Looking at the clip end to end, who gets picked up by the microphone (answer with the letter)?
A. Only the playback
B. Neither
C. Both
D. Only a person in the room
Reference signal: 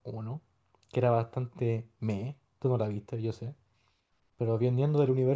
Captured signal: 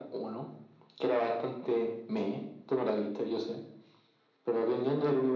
A